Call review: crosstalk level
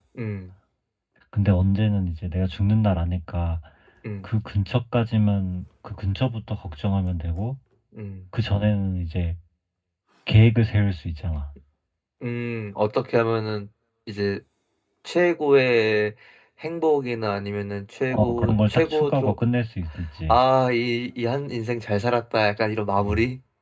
present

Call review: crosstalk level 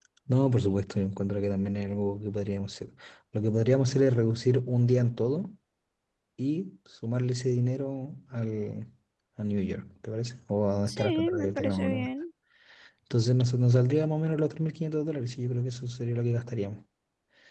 present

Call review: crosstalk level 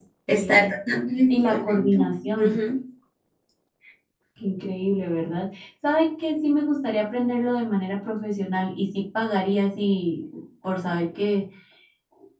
present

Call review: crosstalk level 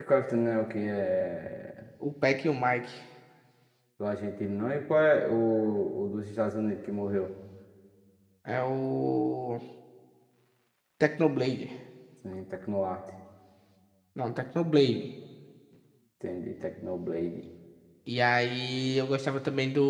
none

